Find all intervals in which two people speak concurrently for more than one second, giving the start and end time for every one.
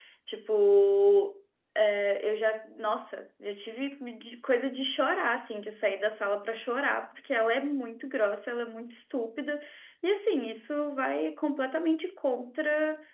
none

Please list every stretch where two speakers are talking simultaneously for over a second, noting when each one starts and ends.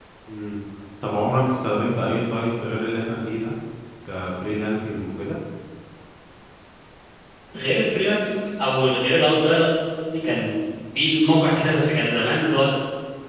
none

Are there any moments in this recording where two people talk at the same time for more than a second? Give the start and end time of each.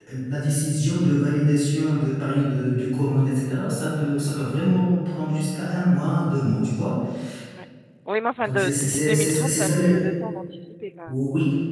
8.4-10.0

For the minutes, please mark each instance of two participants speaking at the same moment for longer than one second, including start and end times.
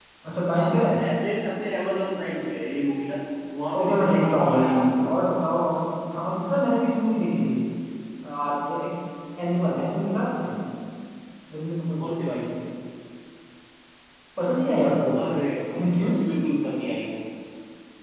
3.8-5.2

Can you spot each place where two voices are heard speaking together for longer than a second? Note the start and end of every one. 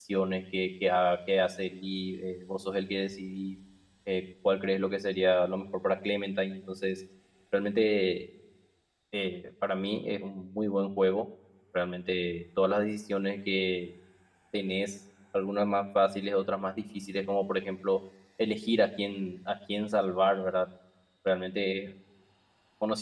none

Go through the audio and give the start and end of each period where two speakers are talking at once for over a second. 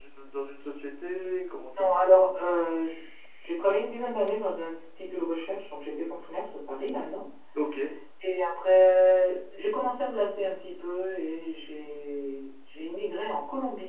none

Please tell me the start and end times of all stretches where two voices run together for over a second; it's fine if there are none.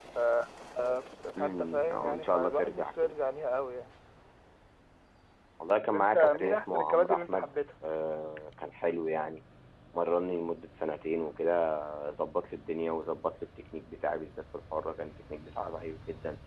1.4-3.1, 5.8-7.5

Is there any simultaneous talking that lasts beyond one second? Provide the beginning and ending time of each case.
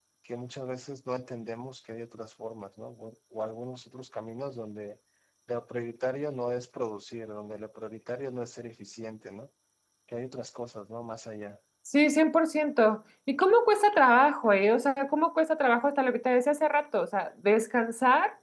none

